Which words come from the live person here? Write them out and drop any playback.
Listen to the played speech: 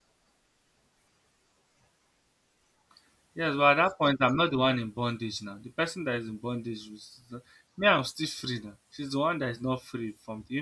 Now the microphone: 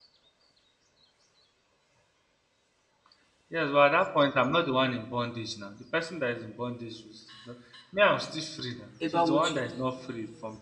about what you know?

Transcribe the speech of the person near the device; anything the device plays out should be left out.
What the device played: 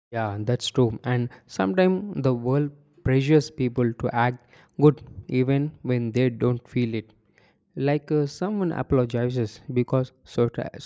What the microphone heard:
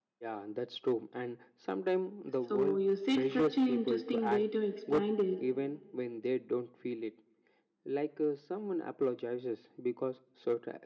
So you said such an interesting way to explain it.

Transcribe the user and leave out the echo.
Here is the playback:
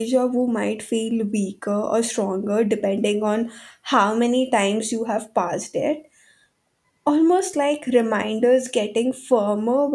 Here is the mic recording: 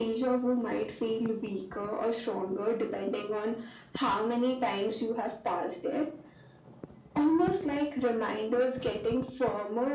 none

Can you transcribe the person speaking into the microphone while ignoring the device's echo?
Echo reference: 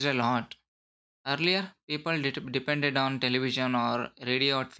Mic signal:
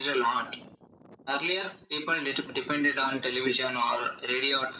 none

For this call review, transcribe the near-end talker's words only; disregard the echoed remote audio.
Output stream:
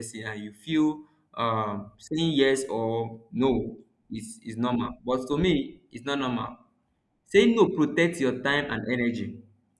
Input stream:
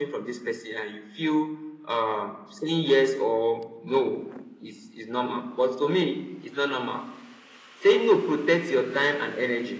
none

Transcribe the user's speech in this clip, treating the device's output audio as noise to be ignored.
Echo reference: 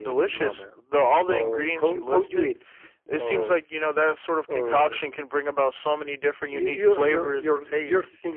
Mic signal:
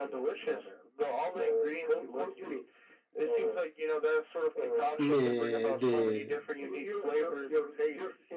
me- the

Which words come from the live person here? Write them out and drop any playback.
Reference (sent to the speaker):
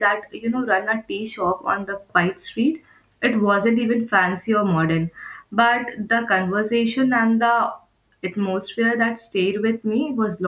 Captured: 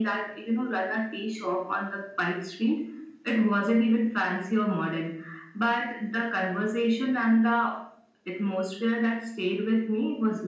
none

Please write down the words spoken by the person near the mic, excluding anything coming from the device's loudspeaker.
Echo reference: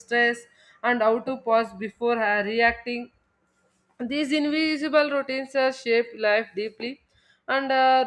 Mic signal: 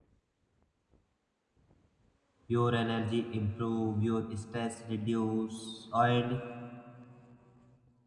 your energy improve your stress reduce and

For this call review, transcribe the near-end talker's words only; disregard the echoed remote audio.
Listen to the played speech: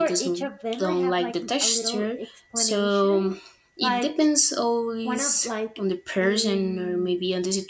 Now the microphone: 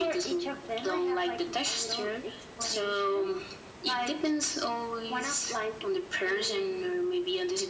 none

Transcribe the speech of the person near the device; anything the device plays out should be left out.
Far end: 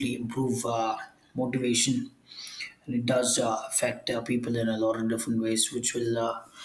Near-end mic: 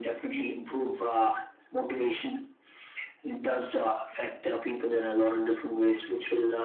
none

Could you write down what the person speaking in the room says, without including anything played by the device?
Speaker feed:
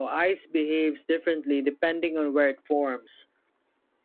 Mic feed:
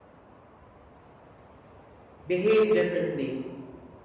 behave differently,

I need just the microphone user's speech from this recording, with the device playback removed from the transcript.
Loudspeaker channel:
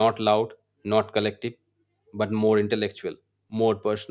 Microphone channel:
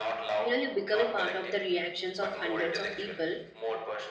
You know, you become a part of the reactions of hundreds of people.

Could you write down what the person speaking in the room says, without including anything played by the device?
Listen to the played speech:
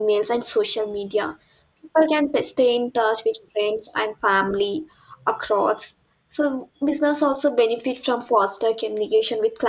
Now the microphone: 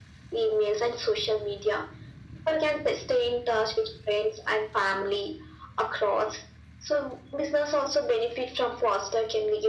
none

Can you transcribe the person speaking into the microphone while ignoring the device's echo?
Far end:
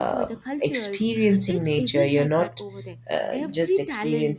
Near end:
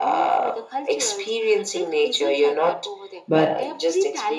but

